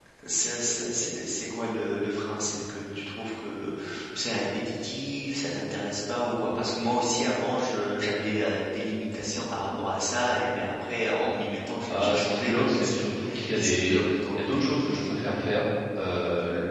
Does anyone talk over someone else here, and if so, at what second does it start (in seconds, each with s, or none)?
11.9 s